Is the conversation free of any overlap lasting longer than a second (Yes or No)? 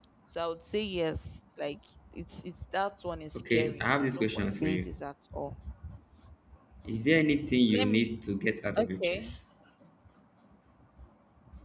No